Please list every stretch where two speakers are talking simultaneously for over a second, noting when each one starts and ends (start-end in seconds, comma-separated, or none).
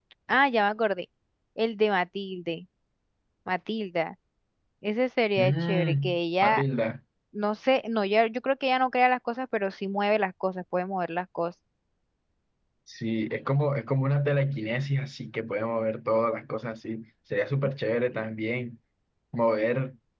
5.4-6.6